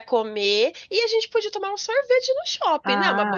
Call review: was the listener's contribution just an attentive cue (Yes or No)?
No